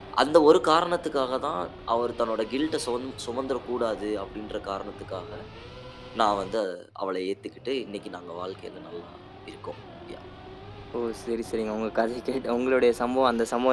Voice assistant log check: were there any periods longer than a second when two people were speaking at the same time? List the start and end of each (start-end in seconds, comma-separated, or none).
none